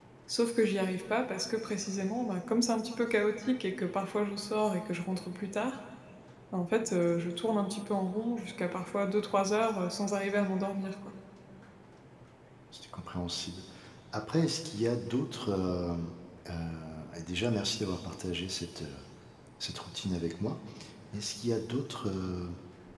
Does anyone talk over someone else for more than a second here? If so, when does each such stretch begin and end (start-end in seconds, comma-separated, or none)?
none